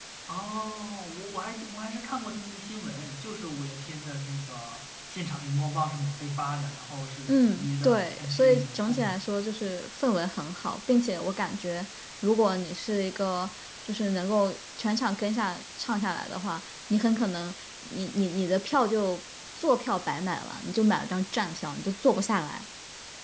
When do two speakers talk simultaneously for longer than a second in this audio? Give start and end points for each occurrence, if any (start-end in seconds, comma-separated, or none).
7.3-9.2